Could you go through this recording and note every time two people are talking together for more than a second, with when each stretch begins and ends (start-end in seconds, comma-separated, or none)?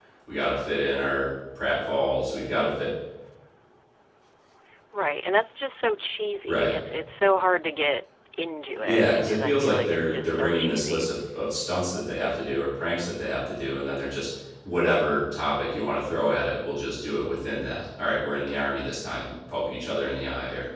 8.8-11.1